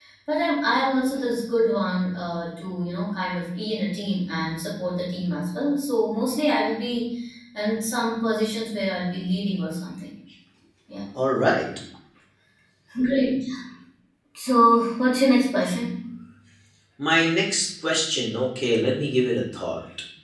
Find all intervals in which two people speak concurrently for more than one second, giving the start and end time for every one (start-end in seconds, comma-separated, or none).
none